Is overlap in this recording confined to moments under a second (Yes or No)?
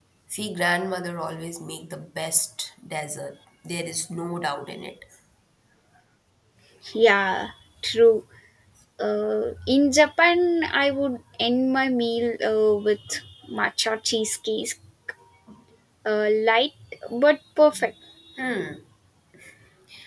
Yes